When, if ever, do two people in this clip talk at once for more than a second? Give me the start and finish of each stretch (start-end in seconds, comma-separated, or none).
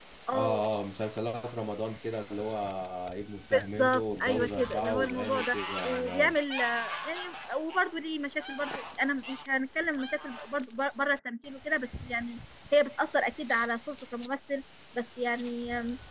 3.5-6.4